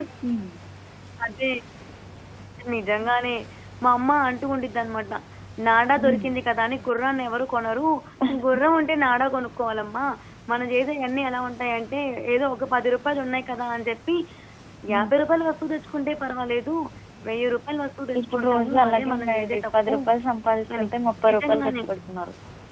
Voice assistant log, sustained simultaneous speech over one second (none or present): present